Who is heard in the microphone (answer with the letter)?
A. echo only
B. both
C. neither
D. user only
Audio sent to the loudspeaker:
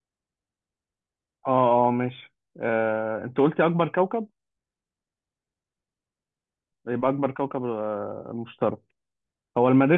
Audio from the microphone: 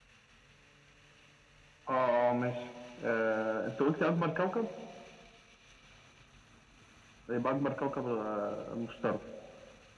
A